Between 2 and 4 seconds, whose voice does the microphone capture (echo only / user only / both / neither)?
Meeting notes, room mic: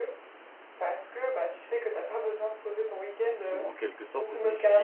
both